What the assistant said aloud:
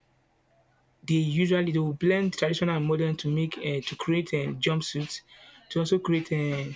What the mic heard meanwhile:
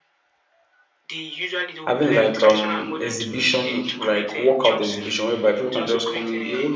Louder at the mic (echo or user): user